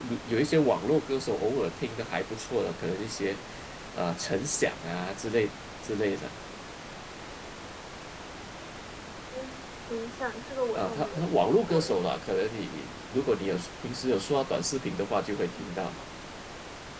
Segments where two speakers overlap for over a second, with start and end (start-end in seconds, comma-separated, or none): 10.7-12.0